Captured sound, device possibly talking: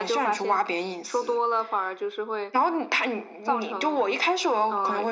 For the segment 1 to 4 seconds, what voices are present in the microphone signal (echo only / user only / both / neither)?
echo only